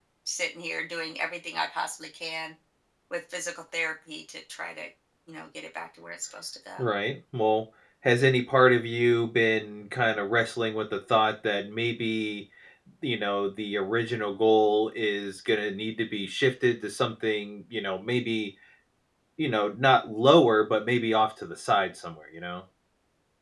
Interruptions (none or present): none